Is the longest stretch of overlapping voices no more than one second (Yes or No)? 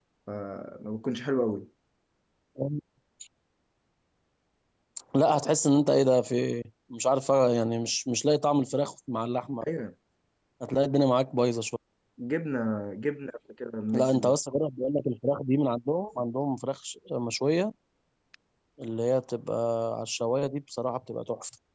Yes